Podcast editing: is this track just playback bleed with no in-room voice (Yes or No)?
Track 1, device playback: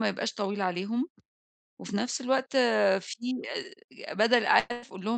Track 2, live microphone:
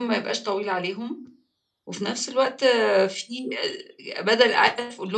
Yes